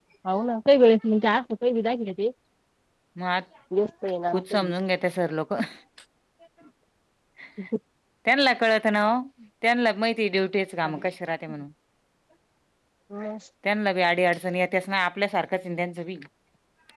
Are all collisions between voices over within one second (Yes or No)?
Yes